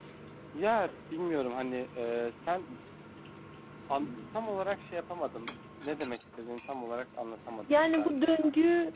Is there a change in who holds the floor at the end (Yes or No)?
Yes